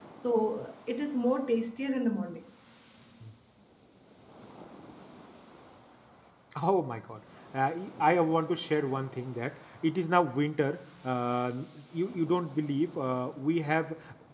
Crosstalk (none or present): none